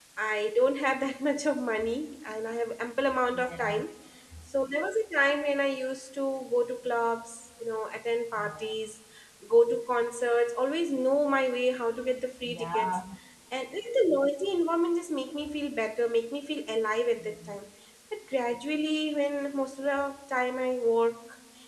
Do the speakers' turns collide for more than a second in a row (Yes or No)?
No